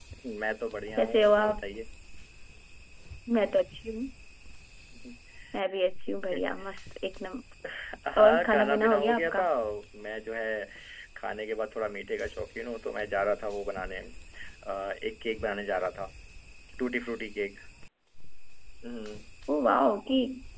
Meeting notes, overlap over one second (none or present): present